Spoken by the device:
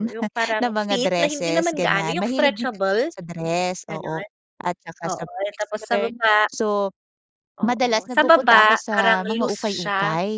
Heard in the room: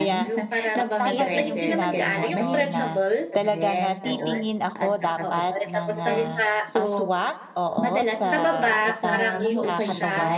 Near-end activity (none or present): present